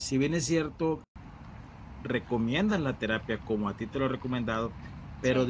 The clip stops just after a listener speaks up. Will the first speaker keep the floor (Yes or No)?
Yes